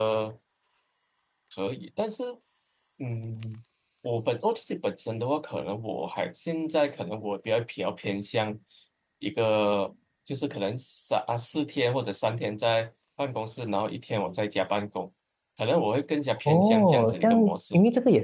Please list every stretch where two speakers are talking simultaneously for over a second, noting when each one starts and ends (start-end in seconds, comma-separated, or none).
16.4-17.7